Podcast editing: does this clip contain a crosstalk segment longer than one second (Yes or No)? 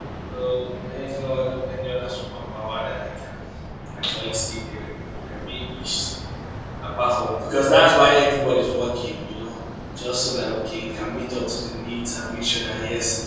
No